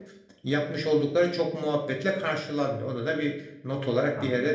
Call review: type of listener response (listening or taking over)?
taking over